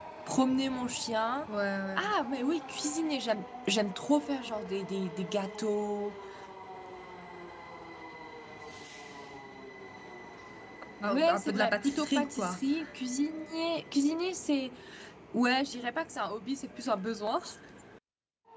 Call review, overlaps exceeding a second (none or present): present